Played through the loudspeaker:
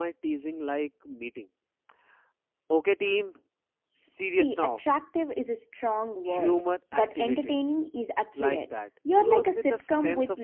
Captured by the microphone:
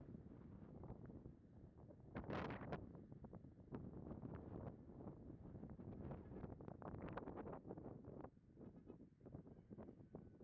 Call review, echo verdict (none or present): none